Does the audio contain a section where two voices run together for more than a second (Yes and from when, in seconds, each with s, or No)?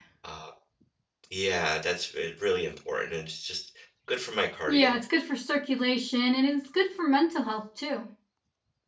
No